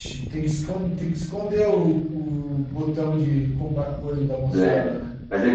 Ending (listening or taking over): taking over